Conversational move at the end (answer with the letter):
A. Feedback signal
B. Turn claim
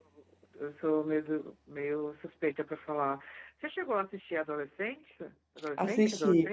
B